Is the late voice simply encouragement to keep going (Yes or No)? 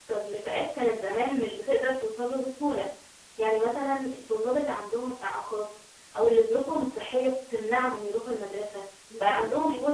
Yes